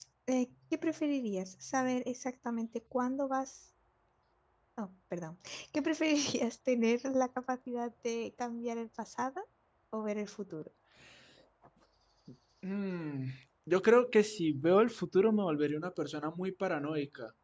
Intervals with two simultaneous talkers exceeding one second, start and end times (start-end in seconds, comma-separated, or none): none